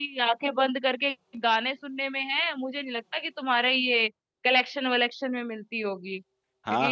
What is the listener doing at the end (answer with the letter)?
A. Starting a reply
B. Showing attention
A